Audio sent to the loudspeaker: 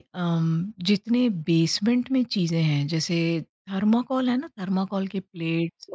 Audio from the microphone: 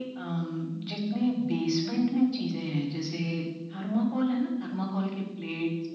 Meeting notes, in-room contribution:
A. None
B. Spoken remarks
A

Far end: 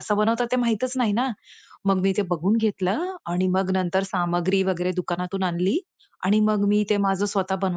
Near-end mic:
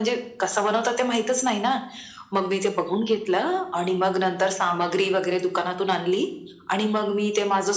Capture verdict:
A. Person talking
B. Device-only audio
B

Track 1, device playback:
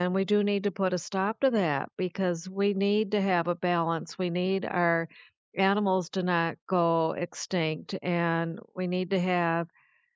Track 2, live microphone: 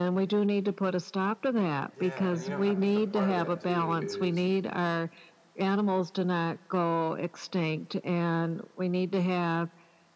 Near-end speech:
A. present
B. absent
A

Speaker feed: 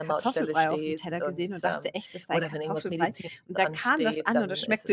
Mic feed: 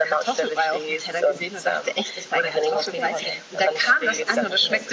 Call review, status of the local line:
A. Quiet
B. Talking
B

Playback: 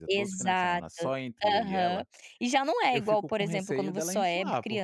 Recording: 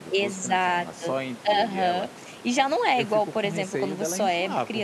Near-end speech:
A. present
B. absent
B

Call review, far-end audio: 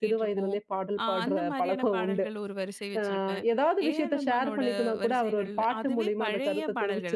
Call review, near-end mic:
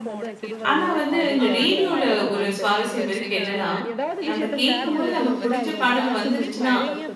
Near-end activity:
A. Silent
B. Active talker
B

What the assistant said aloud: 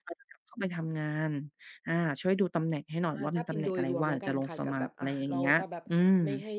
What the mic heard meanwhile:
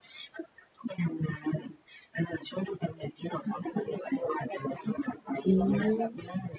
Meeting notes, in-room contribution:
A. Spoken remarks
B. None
A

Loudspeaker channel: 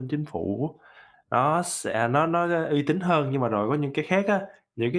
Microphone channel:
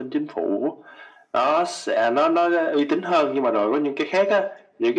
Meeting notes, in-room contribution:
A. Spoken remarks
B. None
B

